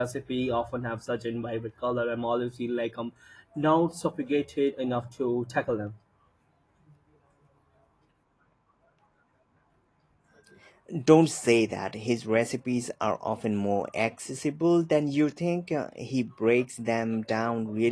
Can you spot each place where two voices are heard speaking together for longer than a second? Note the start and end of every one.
none

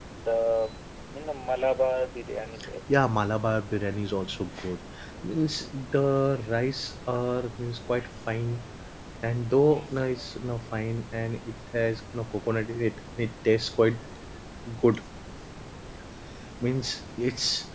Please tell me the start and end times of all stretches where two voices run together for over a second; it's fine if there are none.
none

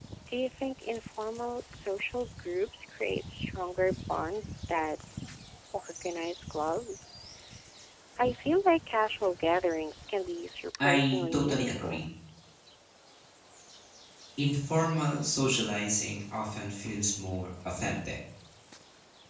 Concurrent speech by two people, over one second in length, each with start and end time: 10.8-12.0

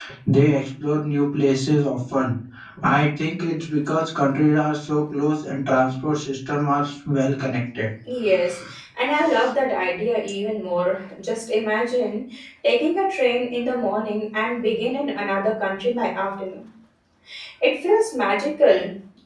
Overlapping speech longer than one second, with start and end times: none

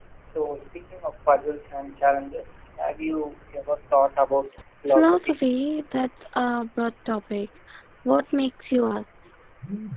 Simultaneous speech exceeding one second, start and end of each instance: none

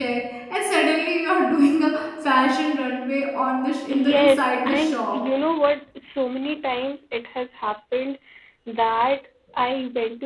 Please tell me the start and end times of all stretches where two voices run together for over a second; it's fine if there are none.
3.9-5.2

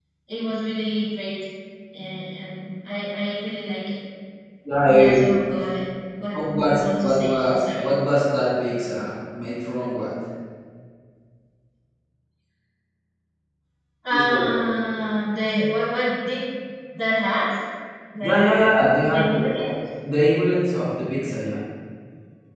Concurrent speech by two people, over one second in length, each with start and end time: 6.3-7.9

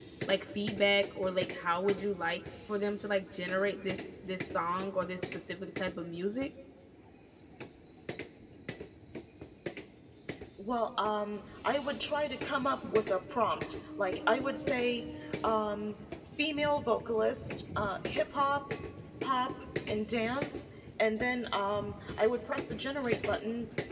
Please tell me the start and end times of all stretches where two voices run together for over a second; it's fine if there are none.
none

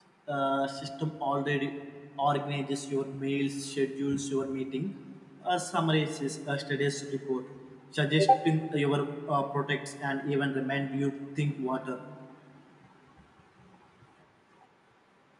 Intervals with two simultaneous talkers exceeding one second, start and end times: none

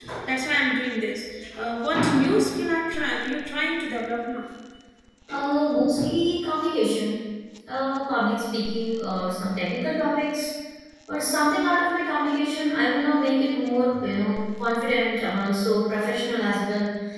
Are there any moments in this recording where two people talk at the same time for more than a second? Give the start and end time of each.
none

